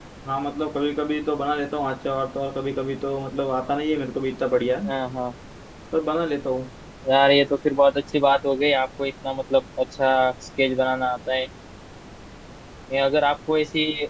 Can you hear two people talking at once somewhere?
No

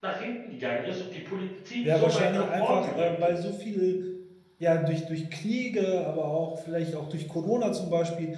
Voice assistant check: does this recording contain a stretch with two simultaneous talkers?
Yes, from 1.8 s

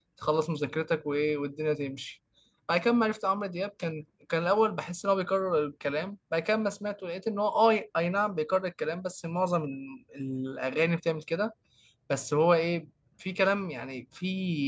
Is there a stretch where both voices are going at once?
No

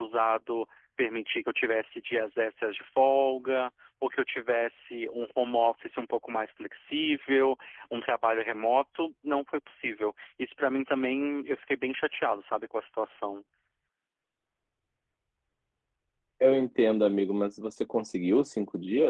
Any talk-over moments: No

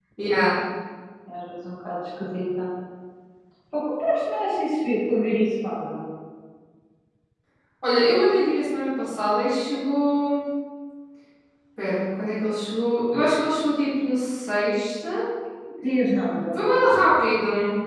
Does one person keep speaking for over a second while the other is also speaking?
No

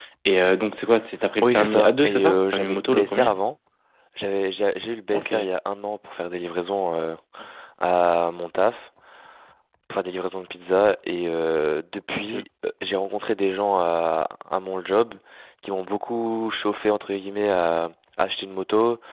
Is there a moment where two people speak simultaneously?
Yes, from 1.4 s

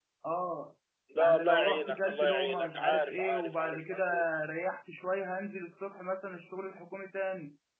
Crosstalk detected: Yes, from 1.1 s

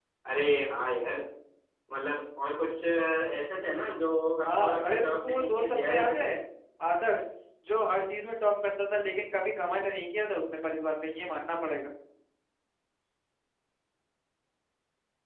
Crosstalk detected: Yes, from 4.4 s

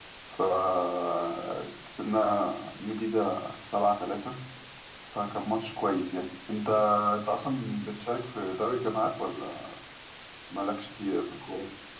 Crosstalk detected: No

